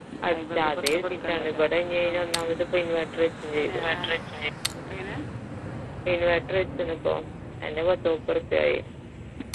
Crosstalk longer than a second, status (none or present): present